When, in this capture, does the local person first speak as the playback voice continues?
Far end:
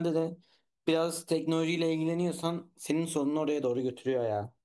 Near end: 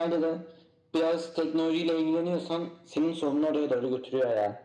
none

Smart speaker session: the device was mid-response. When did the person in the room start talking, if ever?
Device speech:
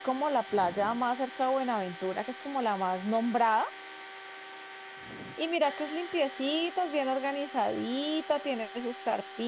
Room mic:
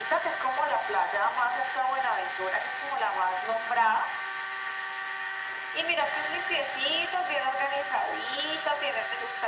none

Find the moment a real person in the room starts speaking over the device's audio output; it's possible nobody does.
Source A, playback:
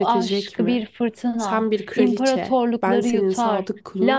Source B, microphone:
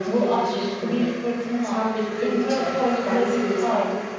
none

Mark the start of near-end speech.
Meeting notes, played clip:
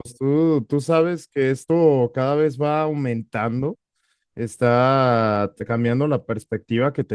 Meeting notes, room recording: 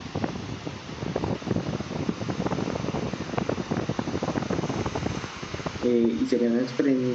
5.8 s

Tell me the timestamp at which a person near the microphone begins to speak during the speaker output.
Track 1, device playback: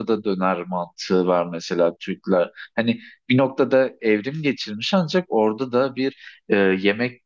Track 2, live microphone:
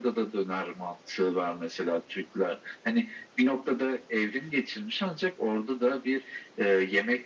none

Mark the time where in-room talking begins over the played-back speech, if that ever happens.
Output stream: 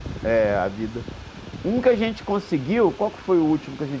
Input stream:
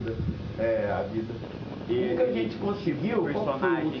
1.9 s

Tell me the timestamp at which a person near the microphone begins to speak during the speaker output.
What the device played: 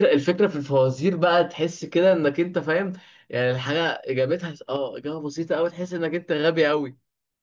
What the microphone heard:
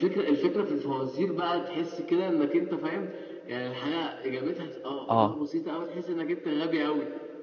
5.1 s

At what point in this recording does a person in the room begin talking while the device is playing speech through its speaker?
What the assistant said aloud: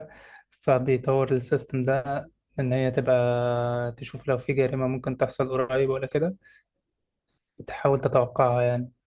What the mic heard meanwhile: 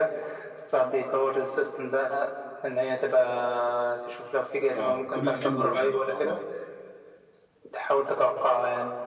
4.8 s

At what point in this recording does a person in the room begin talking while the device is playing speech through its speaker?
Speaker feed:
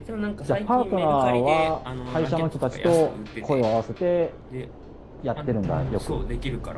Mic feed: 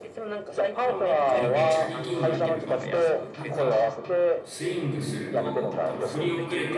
0.9 s

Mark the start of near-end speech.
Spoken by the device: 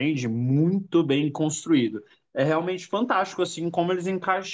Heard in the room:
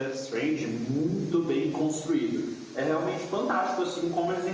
none

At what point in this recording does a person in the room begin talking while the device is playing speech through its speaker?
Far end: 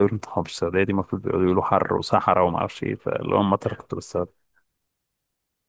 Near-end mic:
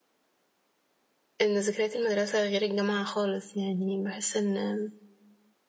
1.4 s

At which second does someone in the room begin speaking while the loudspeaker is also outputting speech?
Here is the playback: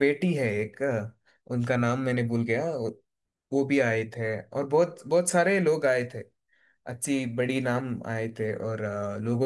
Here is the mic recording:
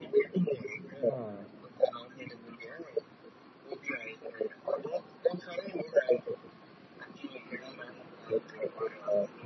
1.1 s

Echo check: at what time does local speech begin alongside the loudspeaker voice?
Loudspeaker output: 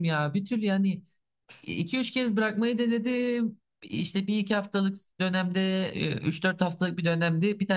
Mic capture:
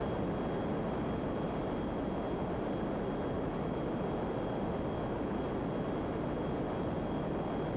none

